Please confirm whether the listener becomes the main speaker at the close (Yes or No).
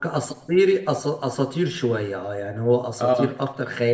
No